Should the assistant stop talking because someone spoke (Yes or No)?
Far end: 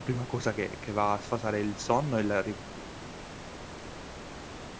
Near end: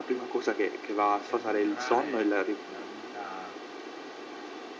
Yes